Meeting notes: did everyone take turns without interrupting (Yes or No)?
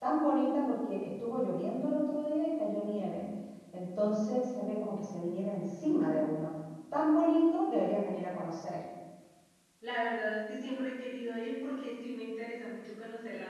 Yes